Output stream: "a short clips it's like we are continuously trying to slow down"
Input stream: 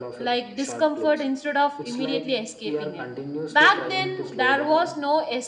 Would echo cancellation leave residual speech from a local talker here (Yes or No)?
Yes